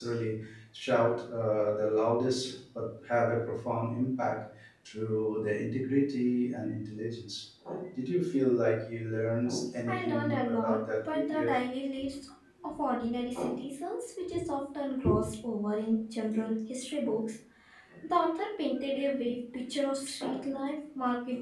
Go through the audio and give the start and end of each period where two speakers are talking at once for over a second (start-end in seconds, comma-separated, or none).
9.9-11.5